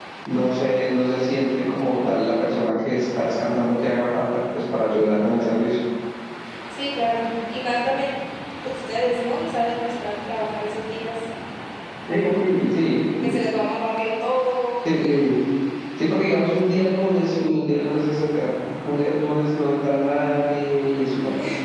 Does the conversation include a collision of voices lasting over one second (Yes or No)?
No